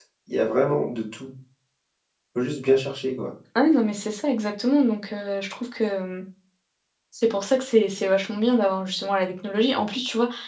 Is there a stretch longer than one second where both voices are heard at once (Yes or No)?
No